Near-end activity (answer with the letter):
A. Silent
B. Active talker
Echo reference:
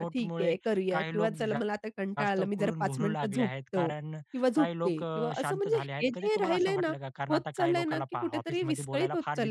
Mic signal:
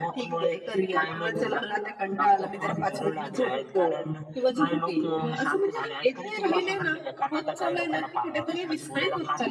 A